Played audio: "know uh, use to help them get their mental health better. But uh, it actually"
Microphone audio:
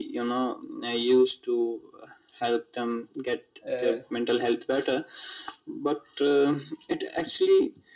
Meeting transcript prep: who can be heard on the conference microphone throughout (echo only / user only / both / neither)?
both